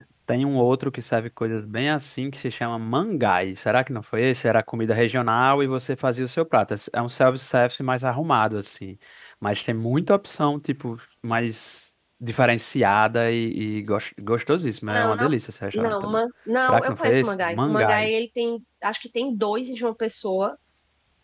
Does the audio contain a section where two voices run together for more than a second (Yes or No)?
Yes